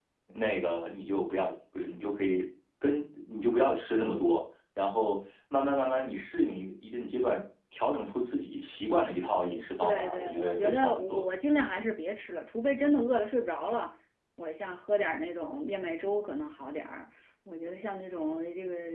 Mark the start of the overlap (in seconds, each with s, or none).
9.8 s